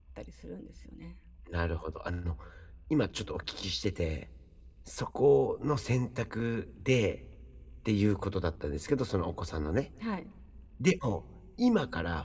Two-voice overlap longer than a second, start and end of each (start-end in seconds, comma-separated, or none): none